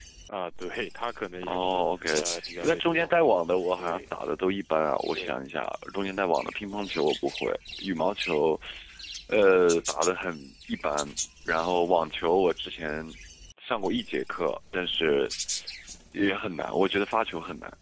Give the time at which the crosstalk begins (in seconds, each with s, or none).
1.4 s